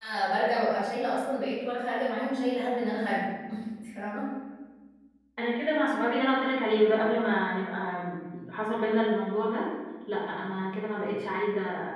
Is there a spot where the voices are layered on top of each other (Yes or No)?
No